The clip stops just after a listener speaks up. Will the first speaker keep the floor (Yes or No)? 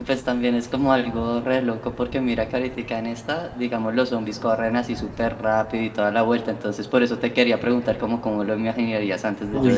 Yes